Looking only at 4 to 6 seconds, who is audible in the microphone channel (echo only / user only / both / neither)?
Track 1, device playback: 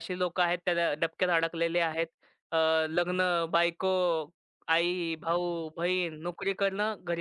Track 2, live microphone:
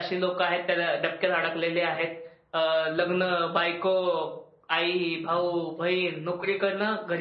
echo only